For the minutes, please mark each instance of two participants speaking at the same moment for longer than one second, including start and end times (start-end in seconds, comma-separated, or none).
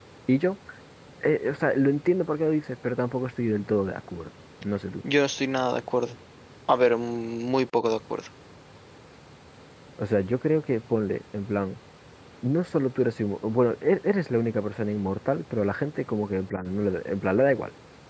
none